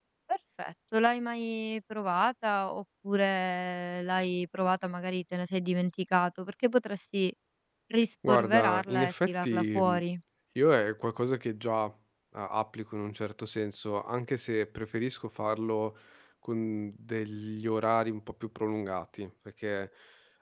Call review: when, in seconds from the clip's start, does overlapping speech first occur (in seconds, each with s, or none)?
8.3 s